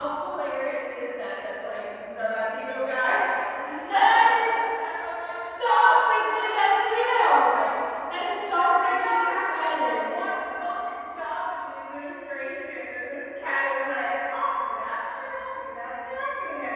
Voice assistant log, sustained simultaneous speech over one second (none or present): present